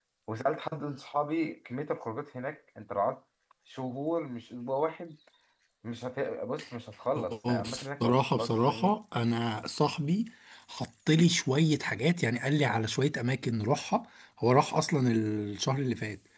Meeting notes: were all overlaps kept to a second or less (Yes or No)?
No